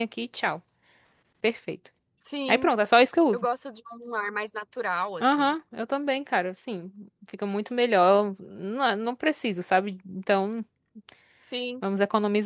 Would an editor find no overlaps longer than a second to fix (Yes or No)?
Yes